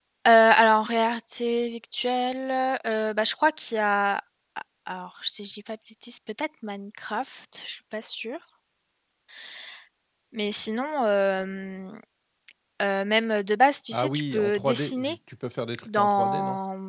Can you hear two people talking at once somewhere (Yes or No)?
Yes